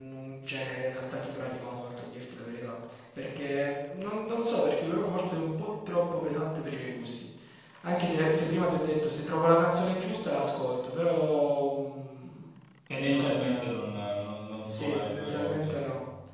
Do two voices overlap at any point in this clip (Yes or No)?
Yes